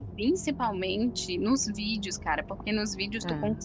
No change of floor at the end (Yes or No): Yes